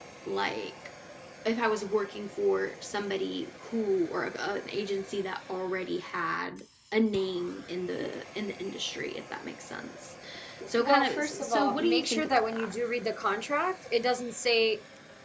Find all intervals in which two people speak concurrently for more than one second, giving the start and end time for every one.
10.8-12.7

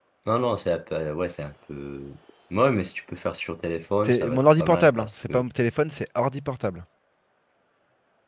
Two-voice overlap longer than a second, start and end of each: 4.0-5.4

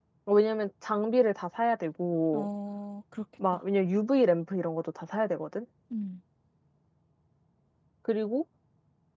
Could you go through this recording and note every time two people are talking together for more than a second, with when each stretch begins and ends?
none

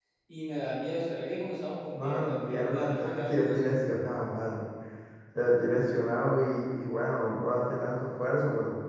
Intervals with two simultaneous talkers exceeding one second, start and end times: 1.9-3.6

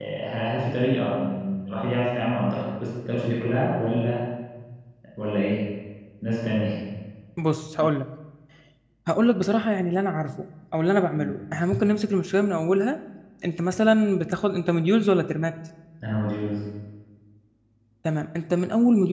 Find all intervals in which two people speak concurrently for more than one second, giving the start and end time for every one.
none

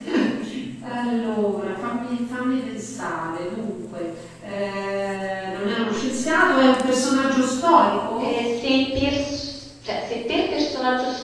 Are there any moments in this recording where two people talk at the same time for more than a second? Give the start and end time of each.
none

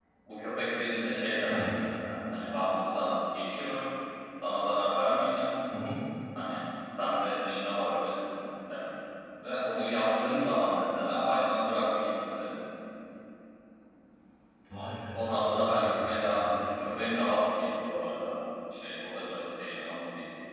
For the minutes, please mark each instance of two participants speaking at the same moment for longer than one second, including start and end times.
15.1-16.9

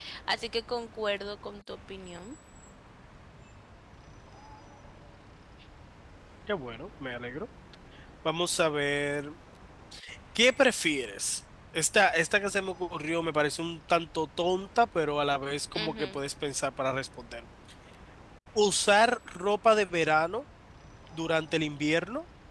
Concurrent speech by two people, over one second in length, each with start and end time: none

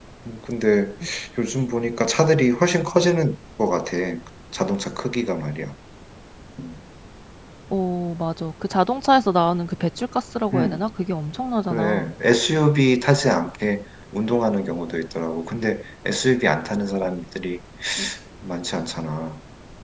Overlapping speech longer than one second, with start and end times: none

